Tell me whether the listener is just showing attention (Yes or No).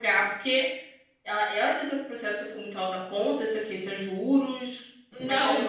No